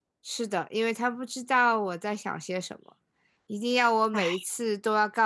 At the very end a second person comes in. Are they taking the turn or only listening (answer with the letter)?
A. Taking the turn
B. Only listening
B